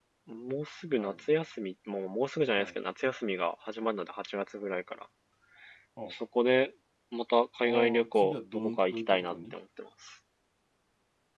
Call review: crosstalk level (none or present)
present